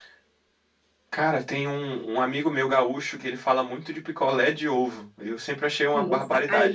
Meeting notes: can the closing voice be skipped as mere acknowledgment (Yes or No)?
No